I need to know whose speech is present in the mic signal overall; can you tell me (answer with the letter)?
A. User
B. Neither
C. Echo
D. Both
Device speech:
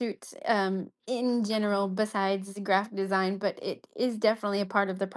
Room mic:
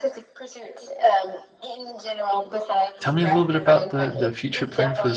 D